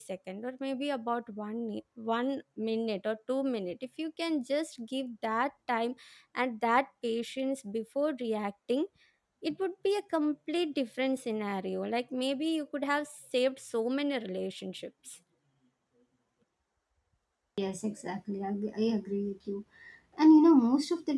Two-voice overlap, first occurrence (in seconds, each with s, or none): none